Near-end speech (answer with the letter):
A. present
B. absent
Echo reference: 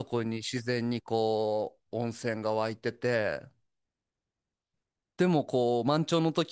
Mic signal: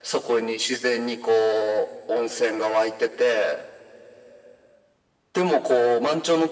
B